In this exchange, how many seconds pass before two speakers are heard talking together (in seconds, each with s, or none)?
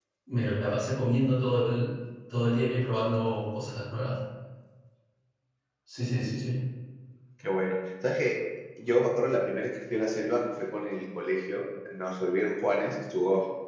none